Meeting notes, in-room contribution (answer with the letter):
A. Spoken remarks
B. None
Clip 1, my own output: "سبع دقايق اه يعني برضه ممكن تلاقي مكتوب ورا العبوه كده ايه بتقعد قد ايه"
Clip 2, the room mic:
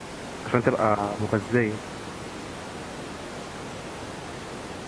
A